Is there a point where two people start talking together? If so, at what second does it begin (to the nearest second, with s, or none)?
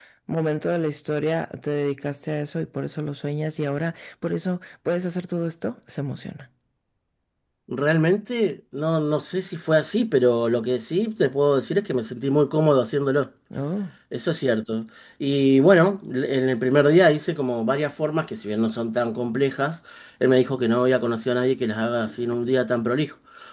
none